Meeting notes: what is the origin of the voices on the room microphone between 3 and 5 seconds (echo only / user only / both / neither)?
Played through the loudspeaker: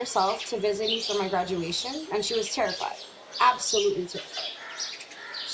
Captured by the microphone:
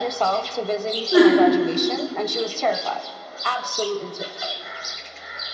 echo only